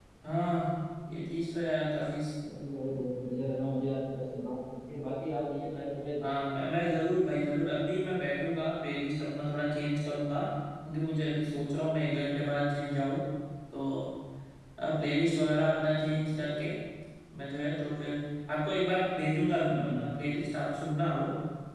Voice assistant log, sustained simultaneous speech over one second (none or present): none